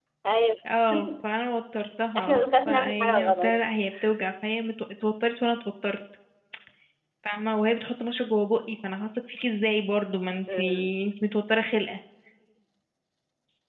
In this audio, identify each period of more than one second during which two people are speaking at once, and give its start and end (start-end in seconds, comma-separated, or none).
2.2-3.6